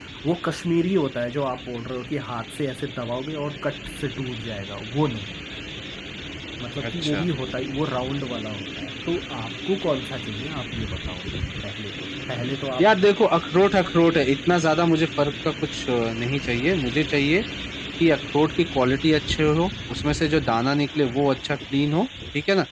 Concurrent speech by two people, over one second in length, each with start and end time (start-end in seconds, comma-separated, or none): none